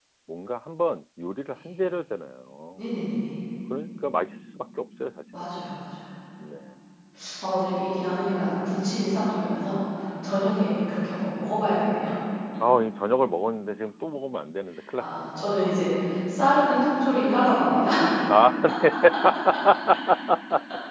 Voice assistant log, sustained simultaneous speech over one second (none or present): none